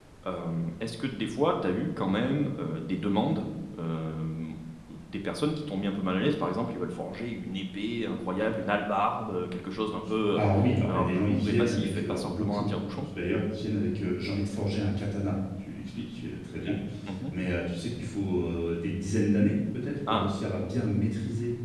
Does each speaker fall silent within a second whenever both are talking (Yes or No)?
No